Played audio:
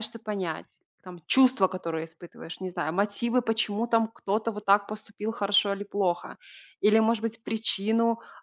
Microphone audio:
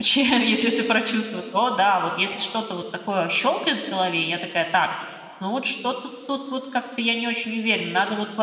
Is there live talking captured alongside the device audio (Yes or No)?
Yes